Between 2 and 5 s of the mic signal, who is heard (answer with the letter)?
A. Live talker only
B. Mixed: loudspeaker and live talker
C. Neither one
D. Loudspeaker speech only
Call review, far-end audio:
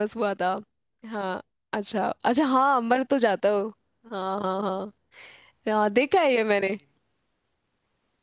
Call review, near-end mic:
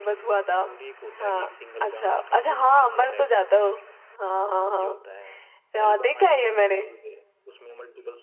B